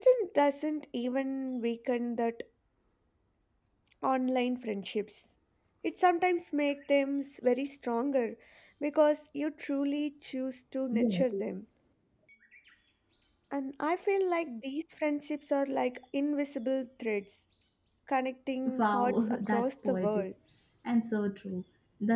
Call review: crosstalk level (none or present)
present